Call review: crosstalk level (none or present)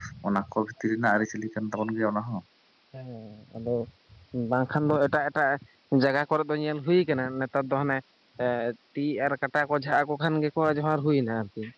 none